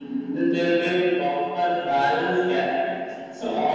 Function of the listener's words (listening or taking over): listening